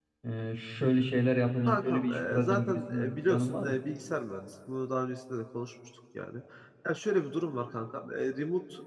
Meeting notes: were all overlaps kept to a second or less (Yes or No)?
No